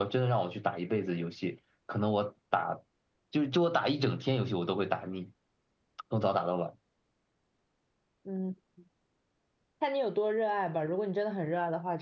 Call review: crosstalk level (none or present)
none